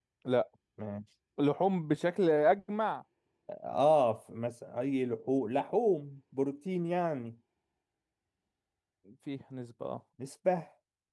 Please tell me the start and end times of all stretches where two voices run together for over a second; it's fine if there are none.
none

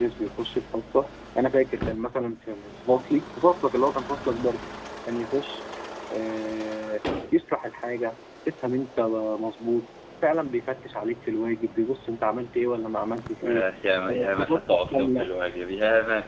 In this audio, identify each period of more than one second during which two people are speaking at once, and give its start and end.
14.1-15.3

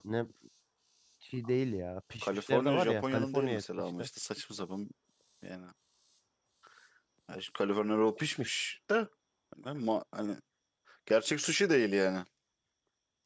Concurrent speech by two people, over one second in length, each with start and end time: 2.2-4.1

